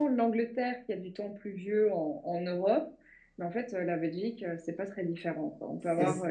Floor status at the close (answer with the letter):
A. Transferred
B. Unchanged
B